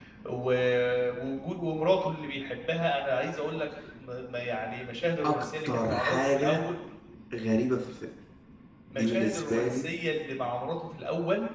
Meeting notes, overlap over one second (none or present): present